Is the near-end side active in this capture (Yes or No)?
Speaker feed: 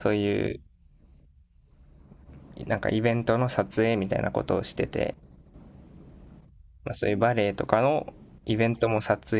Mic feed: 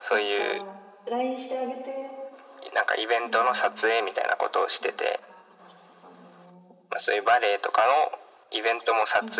Yes